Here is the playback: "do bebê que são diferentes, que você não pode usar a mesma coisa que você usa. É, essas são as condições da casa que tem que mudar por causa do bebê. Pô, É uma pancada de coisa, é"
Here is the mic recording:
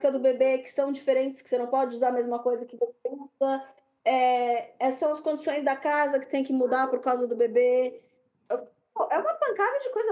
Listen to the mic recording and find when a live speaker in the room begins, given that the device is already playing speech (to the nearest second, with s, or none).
none